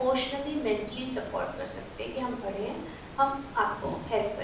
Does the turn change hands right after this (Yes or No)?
No